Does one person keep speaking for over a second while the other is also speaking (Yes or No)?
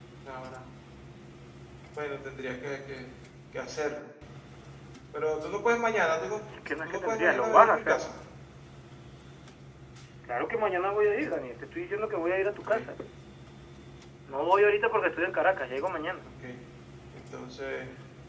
Yes